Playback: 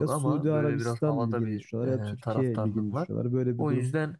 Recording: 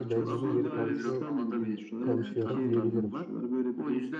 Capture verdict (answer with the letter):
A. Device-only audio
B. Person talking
B